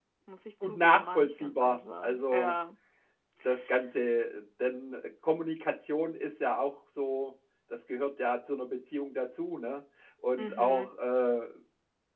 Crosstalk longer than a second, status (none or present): present